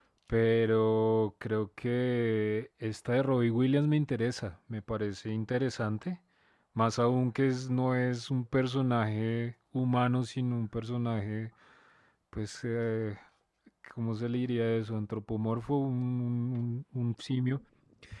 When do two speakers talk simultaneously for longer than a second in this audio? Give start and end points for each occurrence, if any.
none

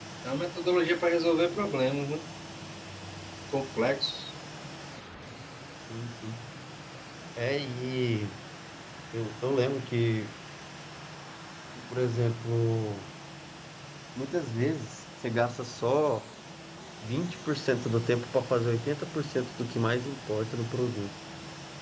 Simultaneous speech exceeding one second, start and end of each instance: none

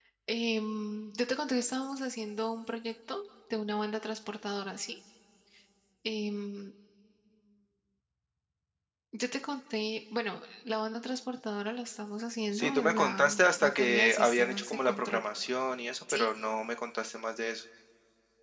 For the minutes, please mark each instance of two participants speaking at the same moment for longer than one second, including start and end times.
12.5-15.3

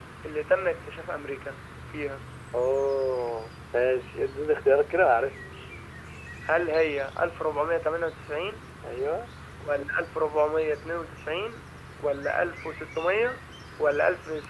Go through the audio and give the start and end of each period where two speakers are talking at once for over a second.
none

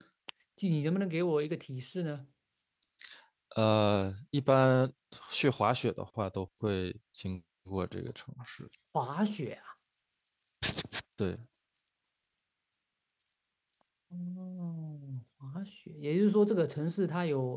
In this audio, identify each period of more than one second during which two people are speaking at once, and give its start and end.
none

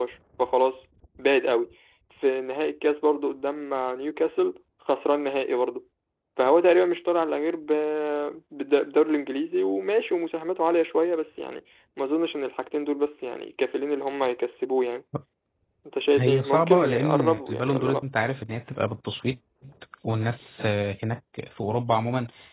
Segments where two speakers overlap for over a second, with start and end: 16.2-18.0

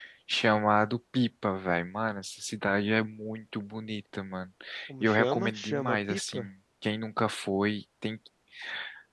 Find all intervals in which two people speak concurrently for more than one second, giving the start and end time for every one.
5.0-6.4

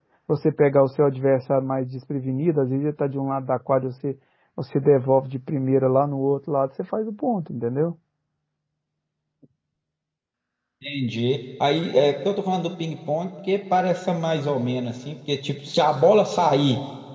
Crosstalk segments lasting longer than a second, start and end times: none

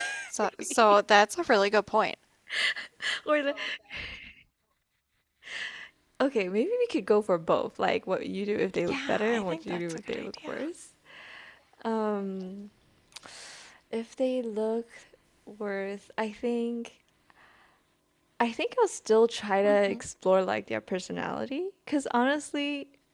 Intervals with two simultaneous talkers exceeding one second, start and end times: 8.9-10.5

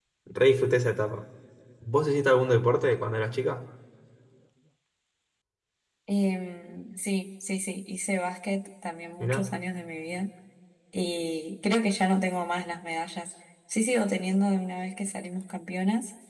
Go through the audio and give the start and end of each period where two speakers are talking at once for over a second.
none

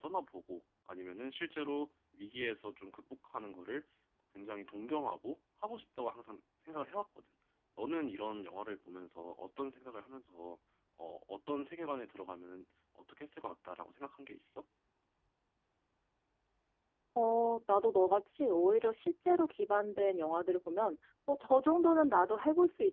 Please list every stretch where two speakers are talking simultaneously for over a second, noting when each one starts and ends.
none

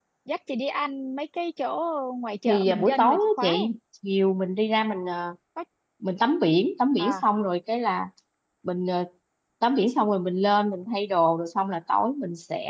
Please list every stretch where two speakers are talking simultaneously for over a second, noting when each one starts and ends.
2.5-3.7

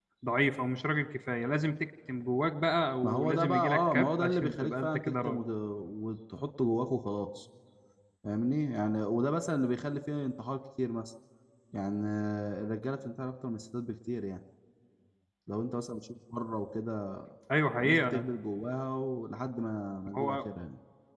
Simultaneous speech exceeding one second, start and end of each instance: 3.0-5.4

